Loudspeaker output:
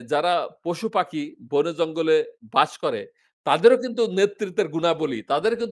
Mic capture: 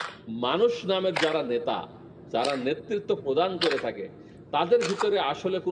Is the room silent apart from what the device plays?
No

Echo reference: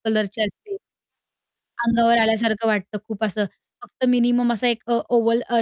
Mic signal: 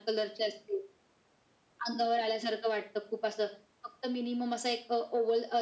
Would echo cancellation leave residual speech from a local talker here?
No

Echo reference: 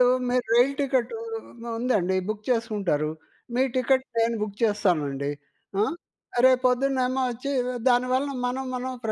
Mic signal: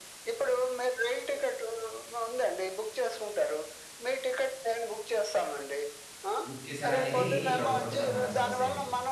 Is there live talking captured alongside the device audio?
Yes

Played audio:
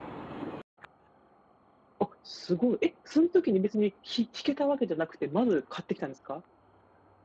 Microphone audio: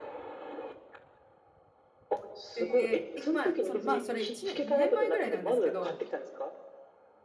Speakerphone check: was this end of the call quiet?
No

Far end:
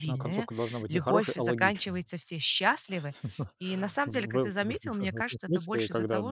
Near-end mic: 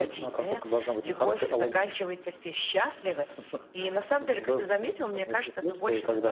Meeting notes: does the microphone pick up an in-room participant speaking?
No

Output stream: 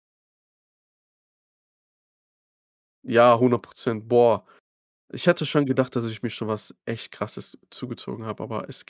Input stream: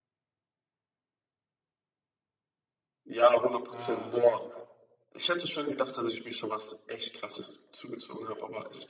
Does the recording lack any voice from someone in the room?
No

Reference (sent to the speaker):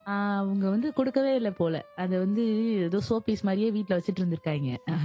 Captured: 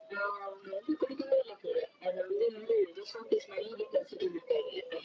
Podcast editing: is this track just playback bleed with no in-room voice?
Yes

